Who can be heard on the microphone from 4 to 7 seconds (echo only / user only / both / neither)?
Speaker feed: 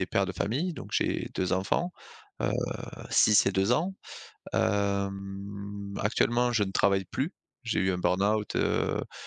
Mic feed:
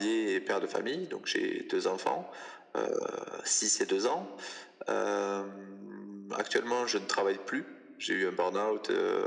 echo only